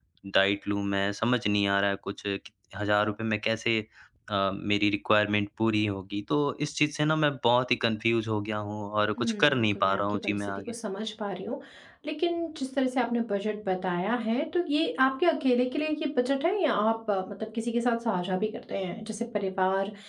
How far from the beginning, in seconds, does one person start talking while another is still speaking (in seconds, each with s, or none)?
9.2 s